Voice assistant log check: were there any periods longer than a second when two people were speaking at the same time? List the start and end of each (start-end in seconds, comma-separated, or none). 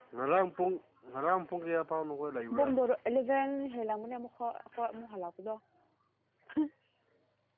none